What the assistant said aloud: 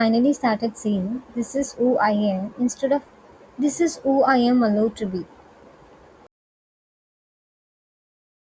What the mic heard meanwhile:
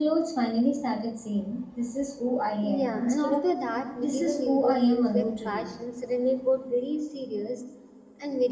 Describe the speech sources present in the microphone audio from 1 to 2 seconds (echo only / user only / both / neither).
echo only